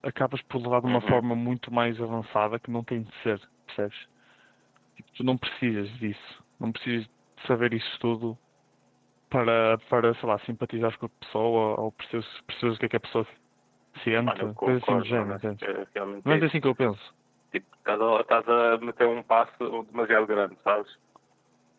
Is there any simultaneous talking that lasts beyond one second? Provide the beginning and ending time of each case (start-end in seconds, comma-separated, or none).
14.2-15.6